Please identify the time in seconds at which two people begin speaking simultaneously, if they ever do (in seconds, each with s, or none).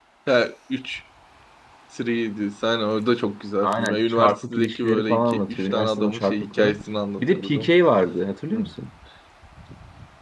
3.6 s